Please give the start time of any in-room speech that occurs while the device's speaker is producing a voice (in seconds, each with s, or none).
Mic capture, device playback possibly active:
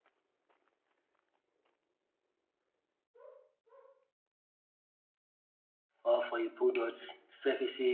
6.0 s